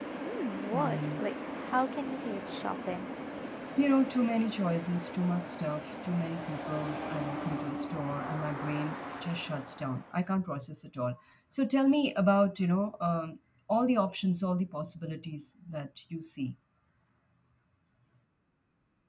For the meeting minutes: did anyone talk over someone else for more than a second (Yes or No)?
No